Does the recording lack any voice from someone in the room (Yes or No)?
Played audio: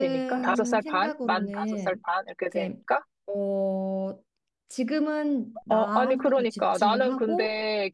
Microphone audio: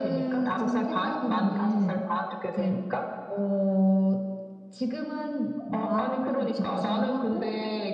Yes